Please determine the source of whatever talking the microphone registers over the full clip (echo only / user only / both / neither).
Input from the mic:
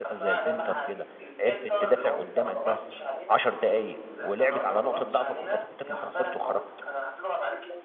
both